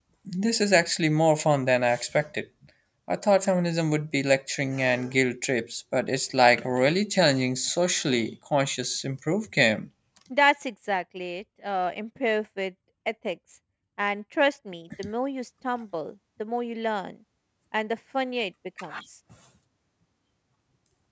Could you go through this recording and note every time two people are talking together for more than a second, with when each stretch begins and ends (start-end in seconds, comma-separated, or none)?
none